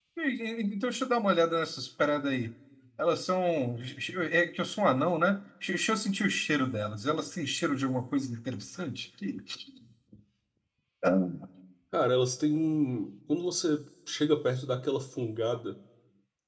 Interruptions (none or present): none